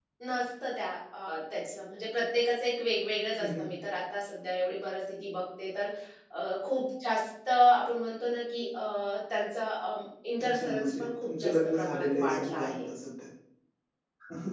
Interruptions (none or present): present